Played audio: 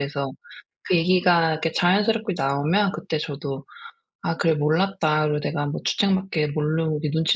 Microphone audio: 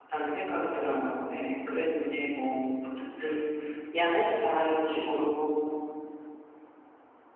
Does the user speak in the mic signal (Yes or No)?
Yes